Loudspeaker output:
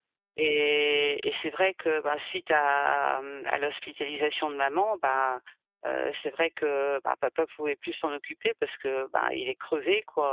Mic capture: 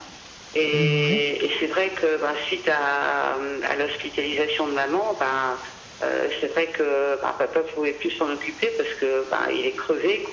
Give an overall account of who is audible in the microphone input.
both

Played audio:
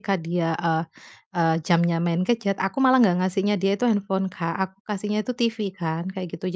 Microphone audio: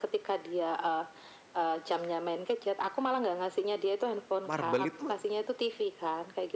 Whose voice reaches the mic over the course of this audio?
both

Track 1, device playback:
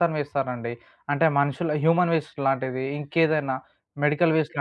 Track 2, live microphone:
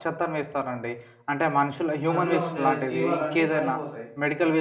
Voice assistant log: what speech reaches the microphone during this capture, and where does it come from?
both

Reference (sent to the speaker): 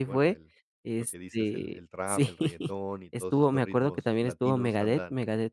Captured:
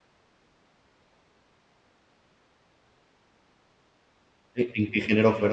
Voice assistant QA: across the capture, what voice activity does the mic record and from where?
user only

